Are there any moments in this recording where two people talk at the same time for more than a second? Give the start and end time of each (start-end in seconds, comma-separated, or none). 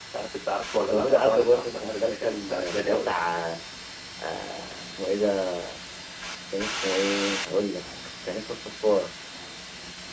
0.8-3.1